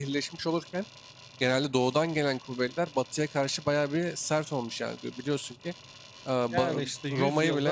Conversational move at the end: taking over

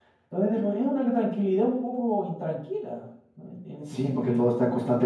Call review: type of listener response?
taking over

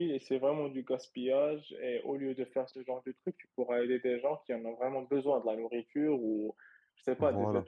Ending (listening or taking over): listening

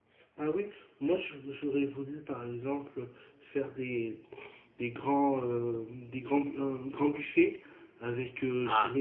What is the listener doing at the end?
listening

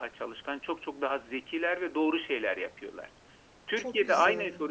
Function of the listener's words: listening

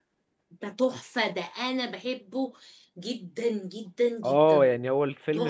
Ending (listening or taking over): taking over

